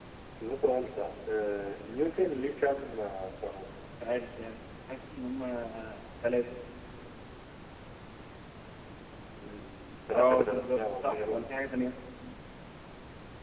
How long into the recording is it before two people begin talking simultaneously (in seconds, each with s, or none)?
10.1 s